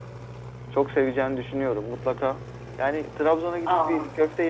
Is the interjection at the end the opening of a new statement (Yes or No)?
No